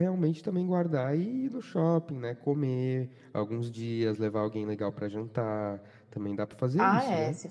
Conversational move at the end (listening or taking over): taking over